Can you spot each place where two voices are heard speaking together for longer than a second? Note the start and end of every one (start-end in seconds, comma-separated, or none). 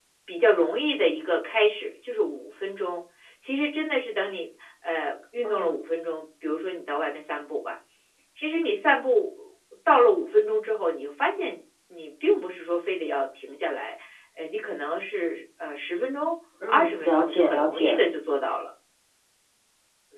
16.7-18.0